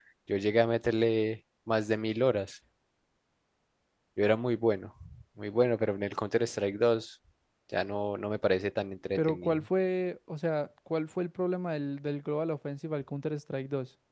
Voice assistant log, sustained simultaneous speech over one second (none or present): none